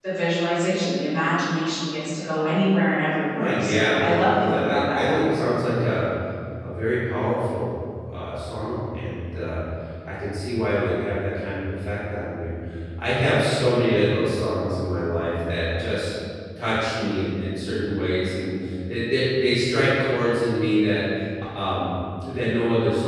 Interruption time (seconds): 3.3 s

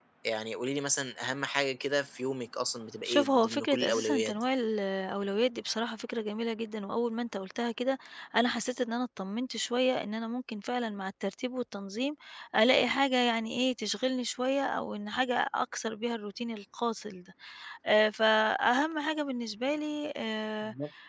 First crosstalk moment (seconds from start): 3.0 s

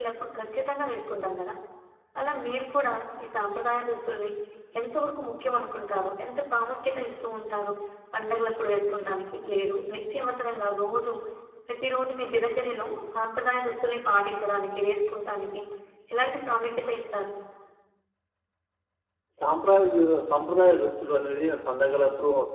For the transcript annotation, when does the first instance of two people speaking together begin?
none

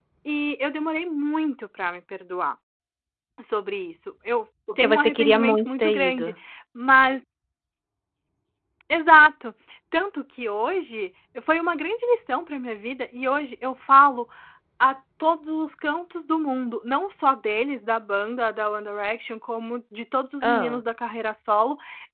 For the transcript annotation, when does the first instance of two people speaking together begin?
4.8 s

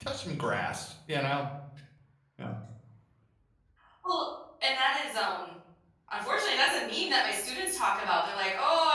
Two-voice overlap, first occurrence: none

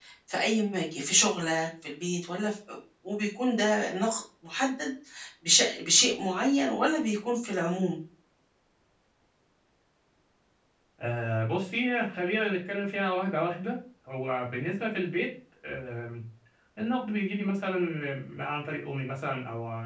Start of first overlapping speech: none

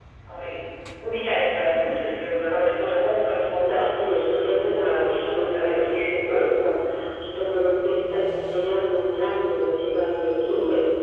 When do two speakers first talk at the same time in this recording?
3.6 s

